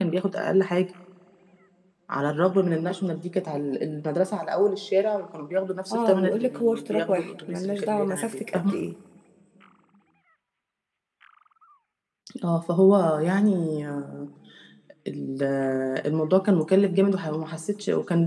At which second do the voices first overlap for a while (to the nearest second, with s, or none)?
6 s